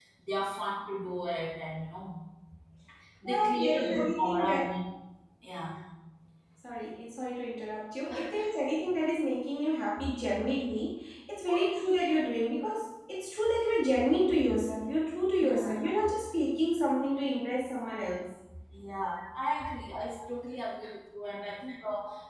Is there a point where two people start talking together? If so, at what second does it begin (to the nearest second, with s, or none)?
3 s